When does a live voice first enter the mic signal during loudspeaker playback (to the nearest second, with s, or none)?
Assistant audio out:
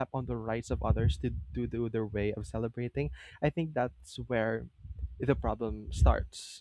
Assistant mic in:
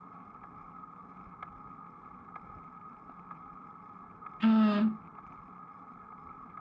4 s